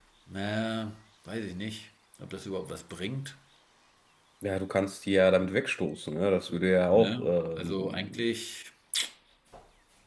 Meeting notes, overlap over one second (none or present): present